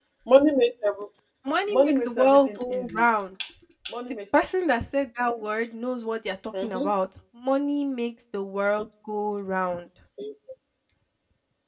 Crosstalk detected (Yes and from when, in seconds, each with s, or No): Yes, from 1.7 s